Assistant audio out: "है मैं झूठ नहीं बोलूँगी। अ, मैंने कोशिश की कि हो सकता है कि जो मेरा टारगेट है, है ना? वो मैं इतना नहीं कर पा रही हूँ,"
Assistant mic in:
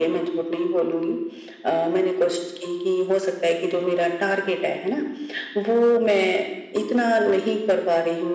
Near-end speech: none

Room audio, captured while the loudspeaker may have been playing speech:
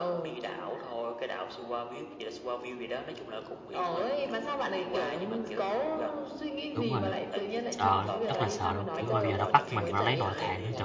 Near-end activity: present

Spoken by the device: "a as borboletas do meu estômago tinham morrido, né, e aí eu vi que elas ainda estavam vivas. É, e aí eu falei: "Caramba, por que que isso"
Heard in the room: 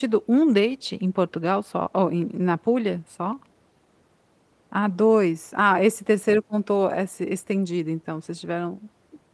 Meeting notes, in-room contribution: present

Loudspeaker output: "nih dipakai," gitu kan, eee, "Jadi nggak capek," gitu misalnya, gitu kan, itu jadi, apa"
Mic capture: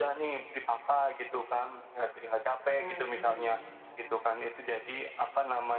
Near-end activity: present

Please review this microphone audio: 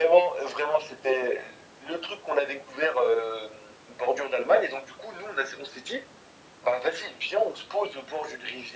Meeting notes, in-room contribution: none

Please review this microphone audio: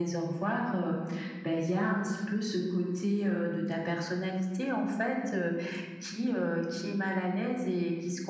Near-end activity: none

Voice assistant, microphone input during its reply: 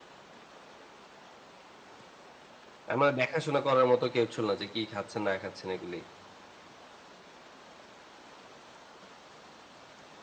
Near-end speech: present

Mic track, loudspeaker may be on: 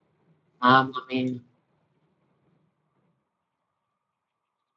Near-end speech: present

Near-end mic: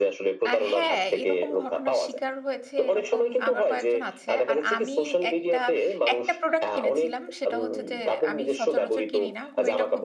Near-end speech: present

